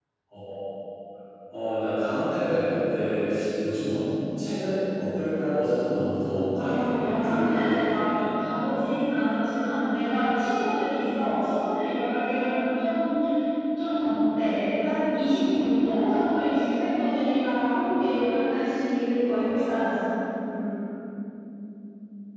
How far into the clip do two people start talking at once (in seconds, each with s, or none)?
6.5 s